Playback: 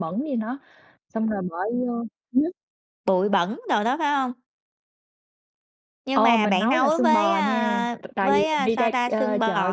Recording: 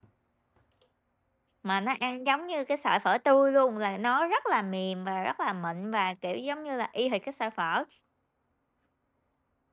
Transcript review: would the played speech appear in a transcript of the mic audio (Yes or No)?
No